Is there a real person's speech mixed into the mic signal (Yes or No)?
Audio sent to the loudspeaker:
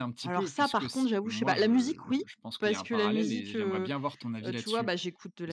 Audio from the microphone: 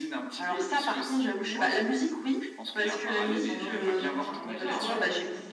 Yes